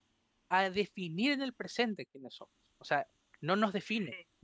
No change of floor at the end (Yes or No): Yes